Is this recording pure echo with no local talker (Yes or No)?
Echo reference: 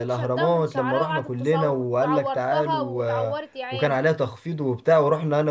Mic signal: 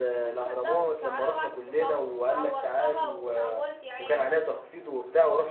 Yes